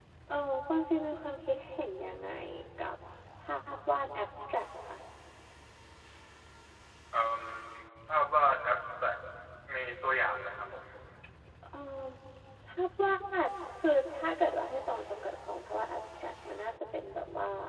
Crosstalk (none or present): none